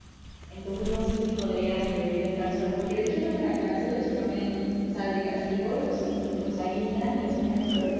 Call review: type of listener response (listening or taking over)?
listening